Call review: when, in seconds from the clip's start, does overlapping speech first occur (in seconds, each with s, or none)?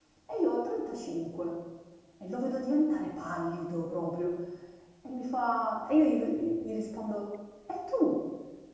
none